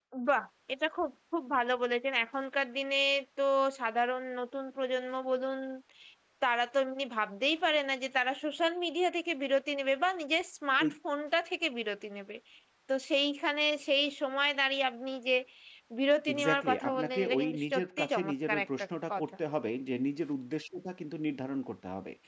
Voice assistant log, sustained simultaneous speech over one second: present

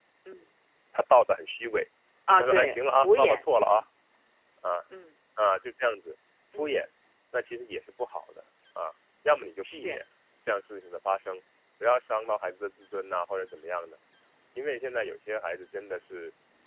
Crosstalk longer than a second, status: present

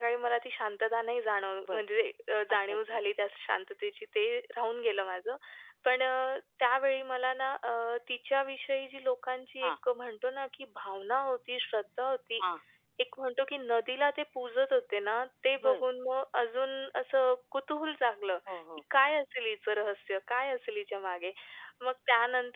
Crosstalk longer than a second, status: none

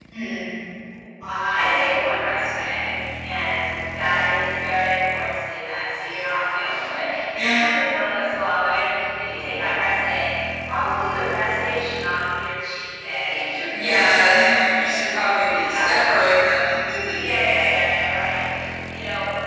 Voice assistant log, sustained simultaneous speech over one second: present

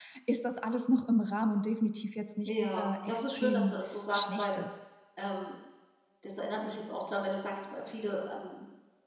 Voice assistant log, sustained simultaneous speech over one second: present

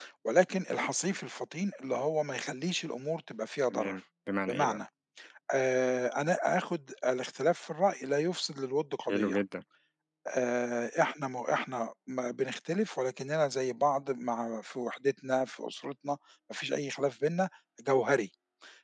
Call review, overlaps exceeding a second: none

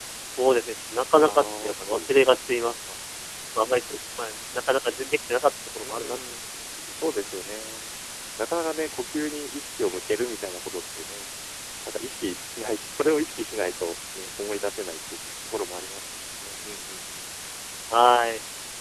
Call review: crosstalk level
present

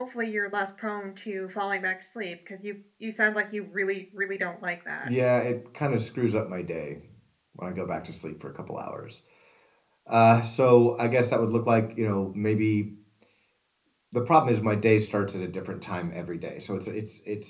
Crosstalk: none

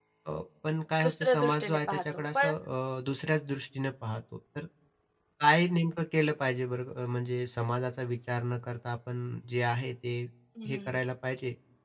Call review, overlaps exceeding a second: present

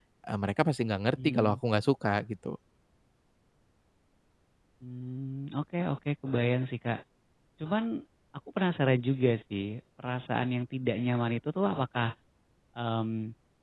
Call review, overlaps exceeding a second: none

